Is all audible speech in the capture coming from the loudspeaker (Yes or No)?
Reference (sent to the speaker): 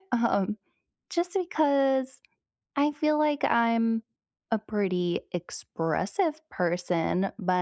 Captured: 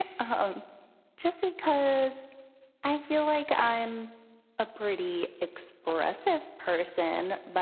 Yes